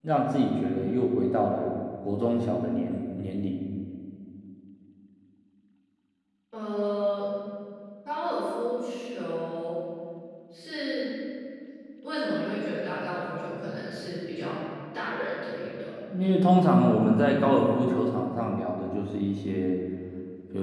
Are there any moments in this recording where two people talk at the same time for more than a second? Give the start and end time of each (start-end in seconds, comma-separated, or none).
none